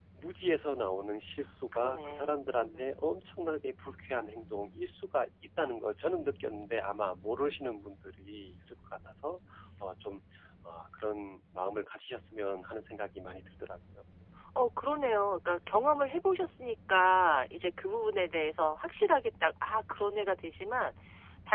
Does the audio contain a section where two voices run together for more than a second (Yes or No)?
Yes